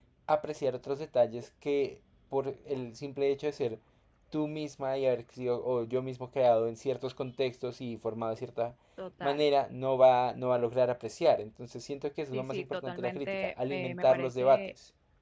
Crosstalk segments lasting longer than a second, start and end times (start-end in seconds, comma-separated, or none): 12.3-14.7